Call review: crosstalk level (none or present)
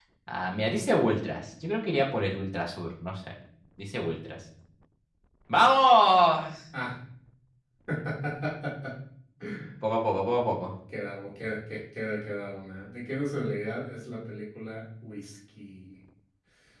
none